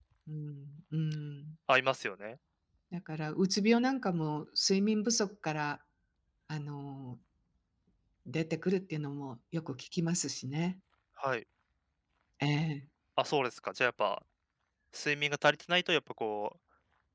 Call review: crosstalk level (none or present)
none